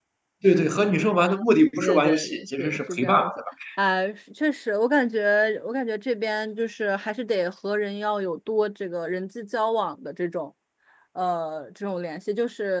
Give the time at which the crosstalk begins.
1.8 s

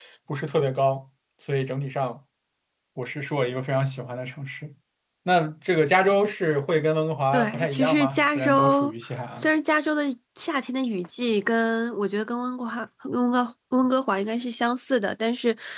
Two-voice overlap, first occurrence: 7.3 s

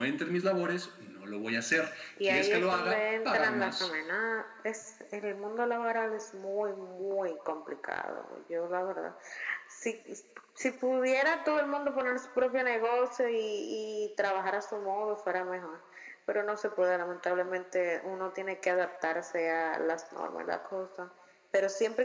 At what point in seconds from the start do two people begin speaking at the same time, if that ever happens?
2.2 s

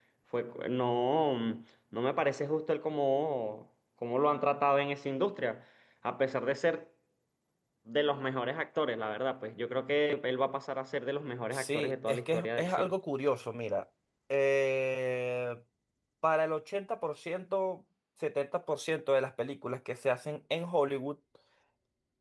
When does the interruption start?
11.5 s

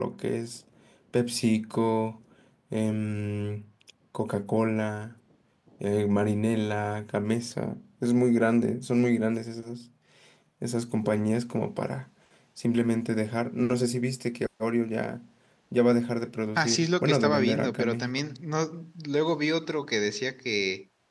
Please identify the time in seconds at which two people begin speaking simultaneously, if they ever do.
16.6 s

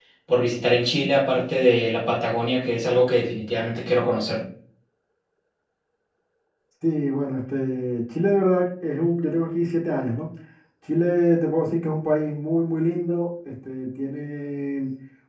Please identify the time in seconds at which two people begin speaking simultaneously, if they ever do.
none

